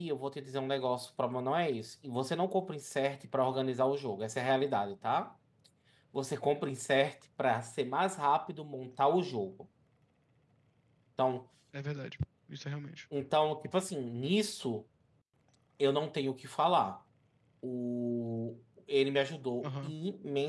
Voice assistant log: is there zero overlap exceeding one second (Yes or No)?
Yes